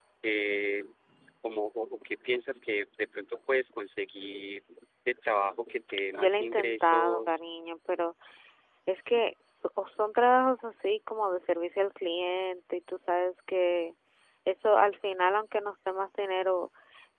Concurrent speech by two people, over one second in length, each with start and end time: 6.1-7.4

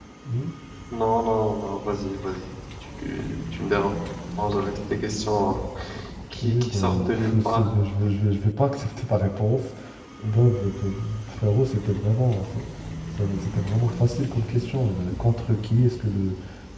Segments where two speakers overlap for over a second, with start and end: 6.3-7.7

